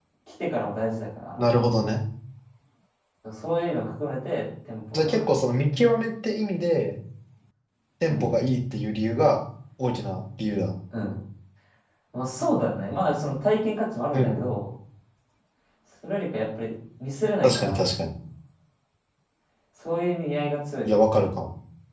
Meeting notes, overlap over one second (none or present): none